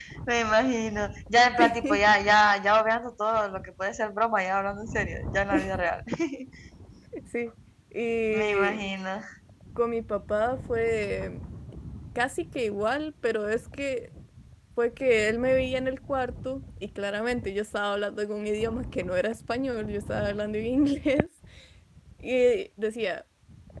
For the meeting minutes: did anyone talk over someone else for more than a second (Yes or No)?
No